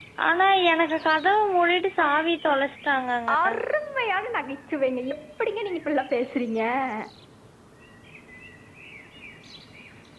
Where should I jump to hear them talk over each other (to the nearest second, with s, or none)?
none